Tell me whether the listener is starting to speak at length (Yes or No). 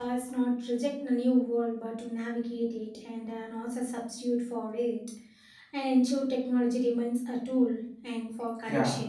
Yes